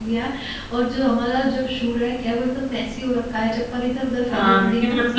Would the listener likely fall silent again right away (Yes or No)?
No